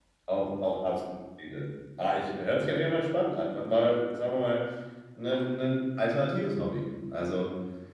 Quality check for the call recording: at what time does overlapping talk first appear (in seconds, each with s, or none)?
none